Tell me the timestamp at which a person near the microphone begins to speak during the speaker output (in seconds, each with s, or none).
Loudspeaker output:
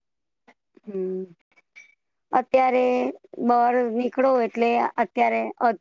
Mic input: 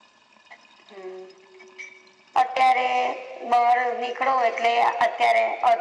none